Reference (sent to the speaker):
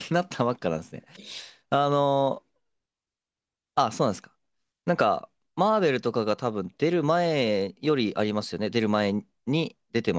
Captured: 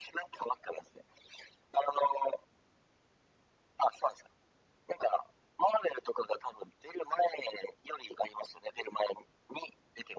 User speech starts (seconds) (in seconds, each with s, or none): none